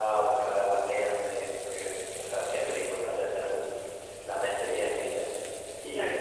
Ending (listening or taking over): listening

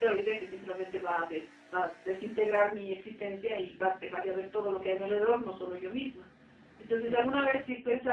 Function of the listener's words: listening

